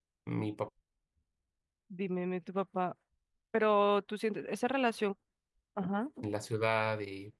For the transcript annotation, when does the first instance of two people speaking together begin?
none

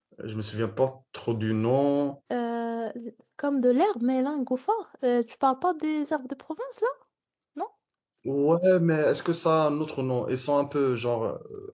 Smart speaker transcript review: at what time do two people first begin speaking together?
none

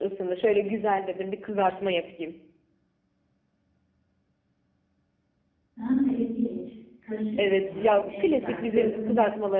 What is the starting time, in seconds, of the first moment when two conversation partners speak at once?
7.4 s

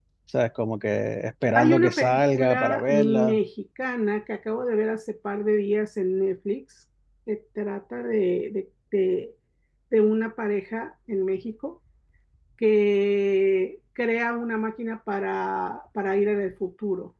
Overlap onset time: 1.6 s

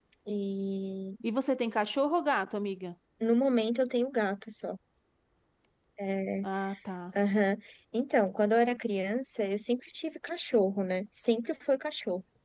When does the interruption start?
none

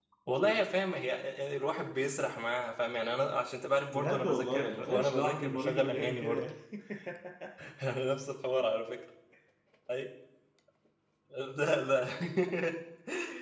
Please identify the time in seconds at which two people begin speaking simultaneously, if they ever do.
3.9 s

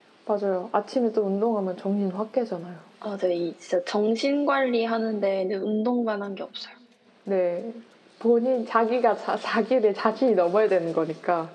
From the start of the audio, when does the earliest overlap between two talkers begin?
none

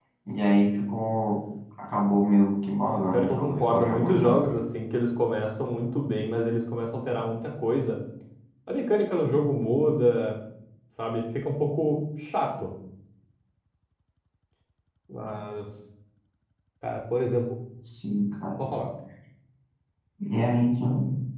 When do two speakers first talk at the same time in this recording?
3.1 s

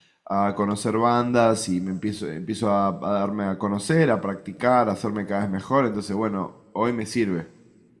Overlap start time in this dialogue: none

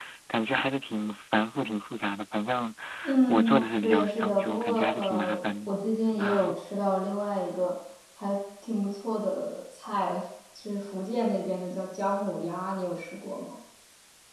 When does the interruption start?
3.3 s

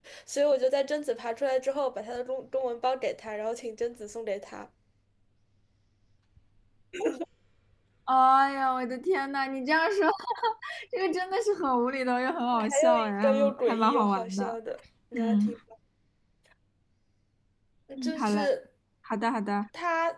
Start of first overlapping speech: 12.7 s

